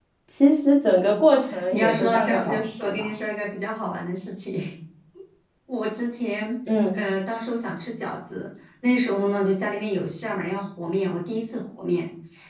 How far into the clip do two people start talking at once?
1.5 s

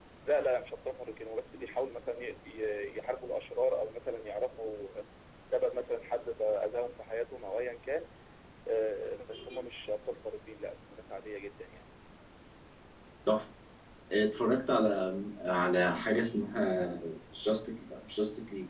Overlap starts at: none

